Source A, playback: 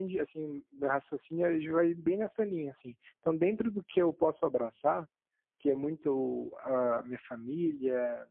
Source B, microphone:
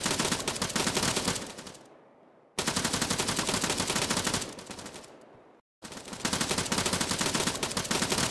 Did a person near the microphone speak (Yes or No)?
No